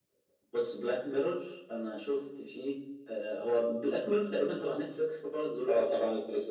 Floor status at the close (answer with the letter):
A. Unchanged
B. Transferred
B